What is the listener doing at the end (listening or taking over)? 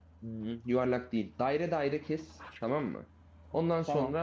listening